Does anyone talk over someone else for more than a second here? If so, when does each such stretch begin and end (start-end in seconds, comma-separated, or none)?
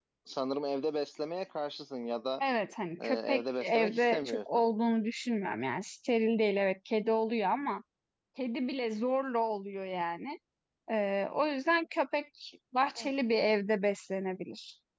3.0-4.6